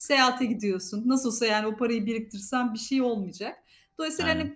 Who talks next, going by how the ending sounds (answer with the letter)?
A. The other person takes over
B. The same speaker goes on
B